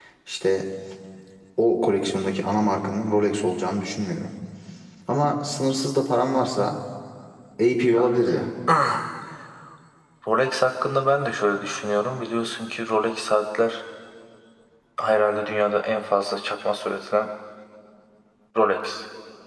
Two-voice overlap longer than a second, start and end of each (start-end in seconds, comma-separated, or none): none